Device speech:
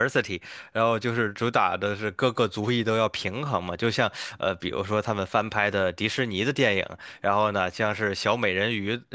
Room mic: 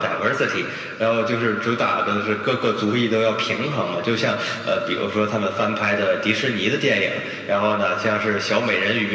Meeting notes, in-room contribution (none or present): none